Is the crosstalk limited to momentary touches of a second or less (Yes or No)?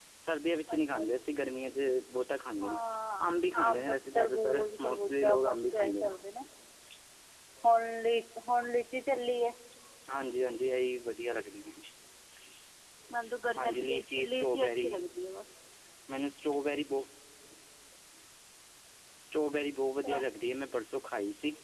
No